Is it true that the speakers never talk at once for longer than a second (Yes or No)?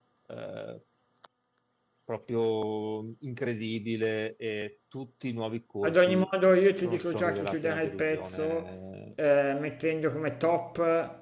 No